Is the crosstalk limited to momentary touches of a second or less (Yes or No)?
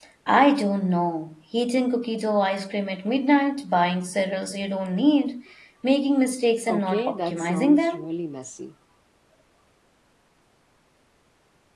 No